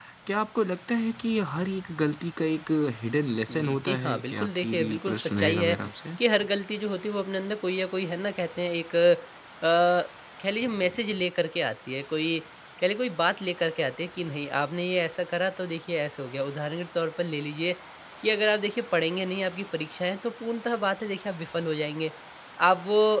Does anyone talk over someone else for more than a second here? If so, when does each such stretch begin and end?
3.5-5.7

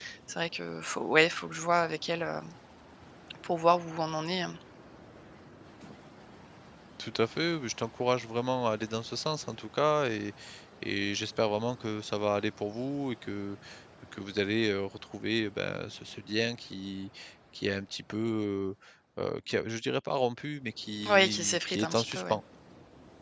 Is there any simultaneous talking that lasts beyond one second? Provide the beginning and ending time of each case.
21.1-22.4

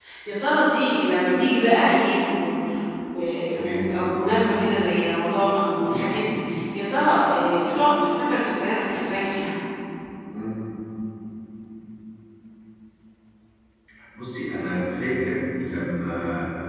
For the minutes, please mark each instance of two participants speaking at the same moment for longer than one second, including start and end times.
none

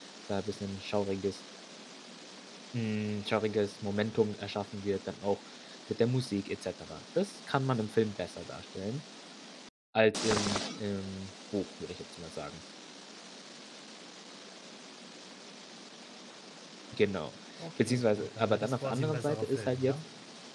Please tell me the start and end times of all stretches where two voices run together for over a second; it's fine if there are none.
17.8-20.0

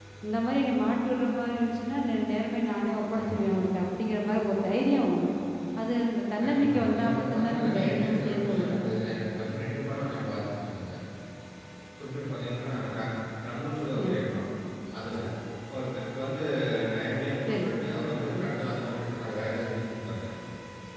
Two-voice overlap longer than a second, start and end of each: 6.4-8.9

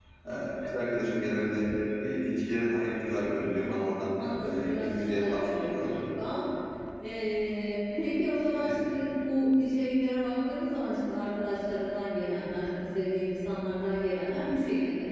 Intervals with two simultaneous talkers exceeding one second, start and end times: 3.5-5.9

